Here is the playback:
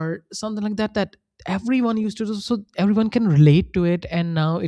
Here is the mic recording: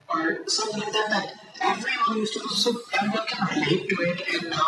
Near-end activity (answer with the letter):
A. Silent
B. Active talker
A